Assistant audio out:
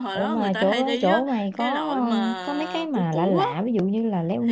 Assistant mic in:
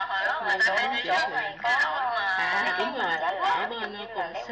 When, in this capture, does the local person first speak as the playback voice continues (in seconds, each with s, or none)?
0.4 s